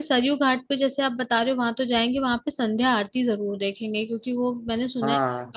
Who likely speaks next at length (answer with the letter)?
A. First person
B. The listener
A